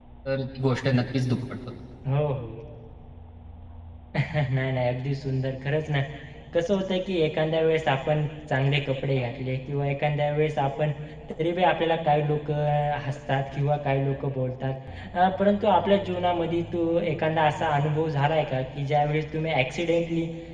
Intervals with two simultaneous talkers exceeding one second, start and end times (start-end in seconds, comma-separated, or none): none